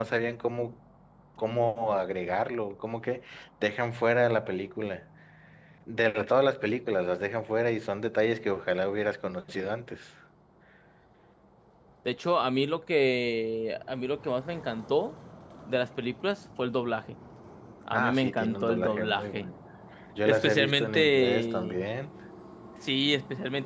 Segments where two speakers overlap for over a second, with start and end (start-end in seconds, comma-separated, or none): 17.9-19.5, 20.2-21.8